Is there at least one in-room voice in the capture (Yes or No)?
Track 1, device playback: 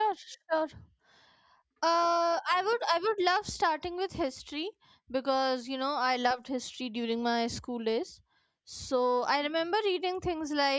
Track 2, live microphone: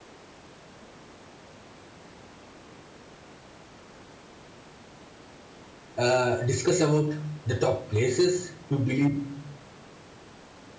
Yes